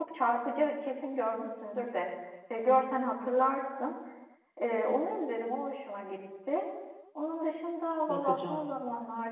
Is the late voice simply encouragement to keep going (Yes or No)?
Yes